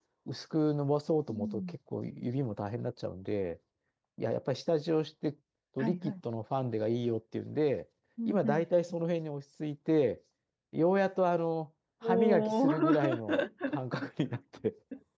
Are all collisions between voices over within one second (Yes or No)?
No